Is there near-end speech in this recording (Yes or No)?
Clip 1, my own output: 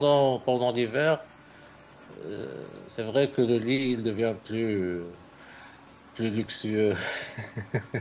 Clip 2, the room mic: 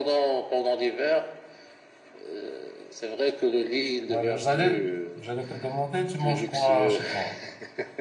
Yes